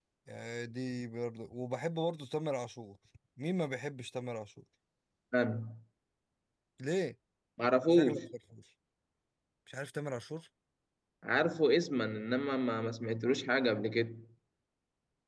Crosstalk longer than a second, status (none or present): none